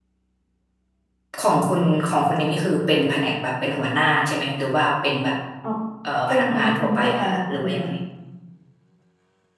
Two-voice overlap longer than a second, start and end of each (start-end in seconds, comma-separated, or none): 6.3-7.9